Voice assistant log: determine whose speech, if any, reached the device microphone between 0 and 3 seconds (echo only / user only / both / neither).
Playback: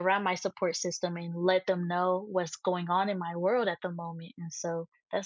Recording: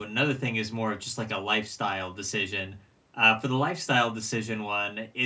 user only